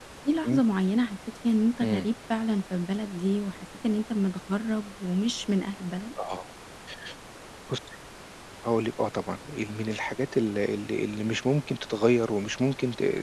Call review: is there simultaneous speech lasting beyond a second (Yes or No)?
No